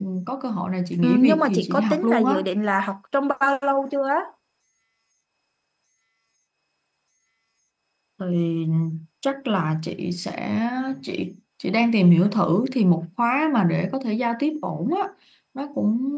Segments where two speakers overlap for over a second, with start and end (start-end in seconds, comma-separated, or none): 1.0-2.4